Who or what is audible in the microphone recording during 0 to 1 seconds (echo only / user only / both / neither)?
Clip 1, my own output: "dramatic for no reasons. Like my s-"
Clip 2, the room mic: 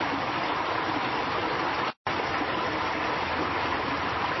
neither